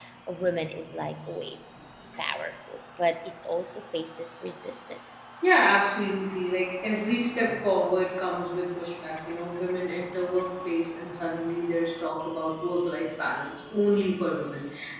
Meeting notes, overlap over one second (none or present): none